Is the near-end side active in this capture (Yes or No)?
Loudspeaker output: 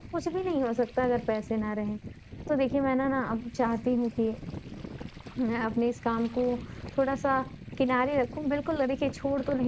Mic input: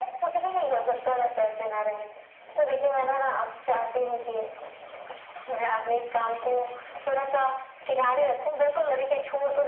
No